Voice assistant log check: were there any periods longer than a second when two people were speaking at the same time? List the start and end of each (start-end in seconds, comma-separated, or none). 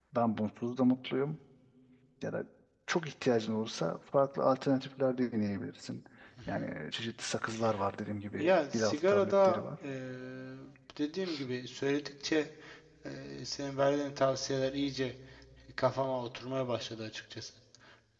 8.4-9.6